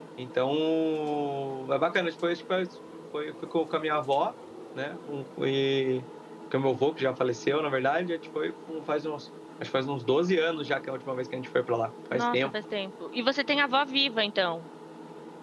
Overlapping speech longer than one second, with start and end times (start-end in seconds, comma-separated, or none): none